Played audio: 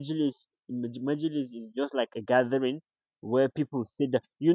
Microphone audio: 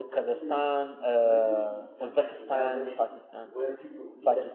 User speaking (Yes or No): Yes